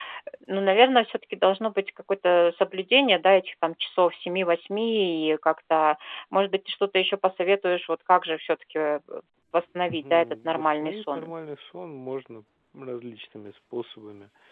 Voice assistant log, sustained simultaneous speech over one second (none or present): present